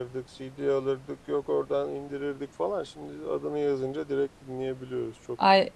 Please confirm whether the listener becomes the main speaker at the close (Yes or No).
Yes